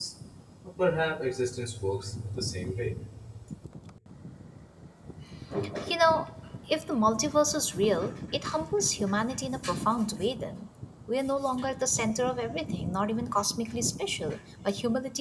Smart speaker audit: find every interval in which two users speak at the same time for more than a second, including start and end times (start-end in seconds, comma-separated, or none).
none